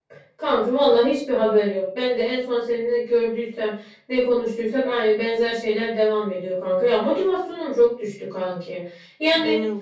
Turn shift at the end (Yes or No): No